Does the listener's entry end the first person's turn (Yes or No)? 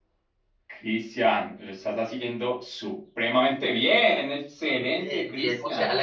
Yes